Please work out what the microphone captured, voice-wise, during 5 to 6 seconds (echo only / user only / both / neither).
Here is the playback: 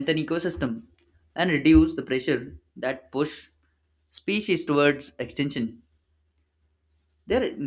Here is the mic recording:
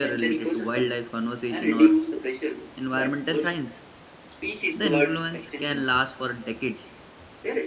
both